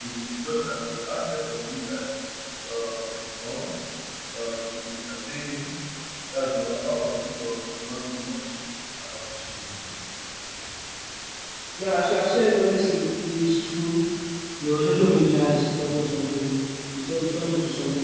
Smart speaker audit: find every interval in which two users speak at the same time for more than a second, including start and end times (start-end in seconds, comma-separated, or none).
none